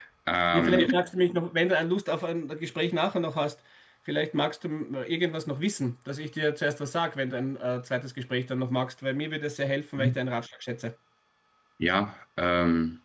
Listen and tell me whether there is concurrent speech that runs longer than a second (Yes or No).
No